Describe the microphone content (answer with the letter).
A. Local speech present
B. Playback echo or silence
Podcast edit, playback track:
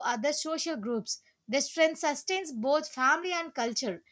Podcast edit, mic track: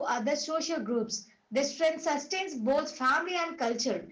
B